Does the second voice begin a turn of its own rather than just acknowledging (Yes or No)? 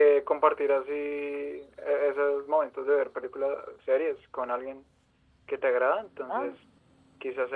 No